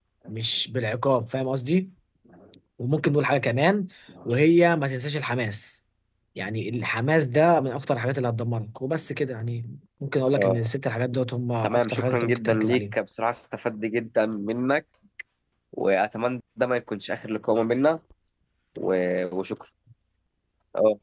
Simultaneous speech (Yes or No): Yes